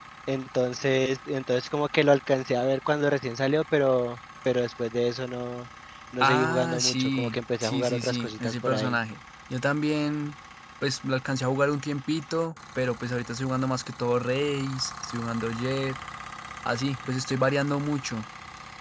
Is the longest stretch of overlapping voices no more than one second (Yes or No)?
No